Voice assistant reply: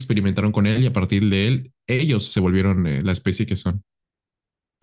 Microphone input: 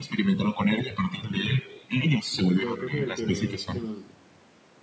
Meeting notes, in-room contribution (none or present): present